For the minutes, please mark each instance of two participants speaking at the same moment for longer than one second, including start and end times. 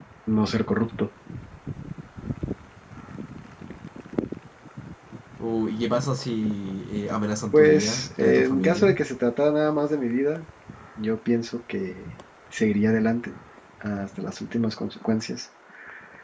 7.5-9.0

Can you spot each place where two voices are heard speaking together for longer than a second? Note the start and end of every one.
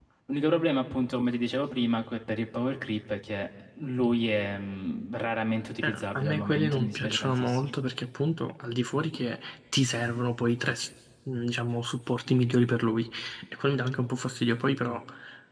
5.8-7.7

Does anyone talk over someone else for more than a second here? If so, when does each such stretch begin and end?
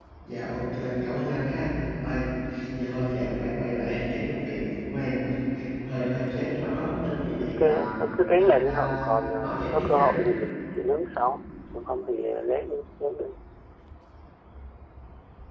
8.4-10.1

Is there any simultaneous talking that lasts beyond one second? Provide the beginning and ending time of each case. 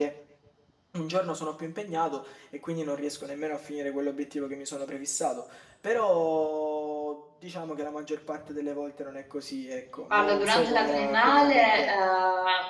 10.1-11.9

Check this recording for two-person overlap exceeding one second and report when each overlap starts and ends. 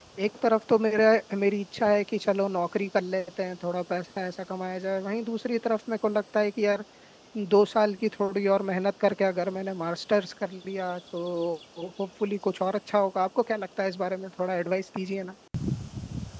none

